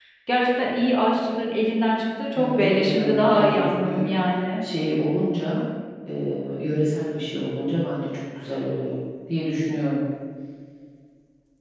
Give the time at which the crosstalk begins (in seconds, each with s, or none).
2.4 s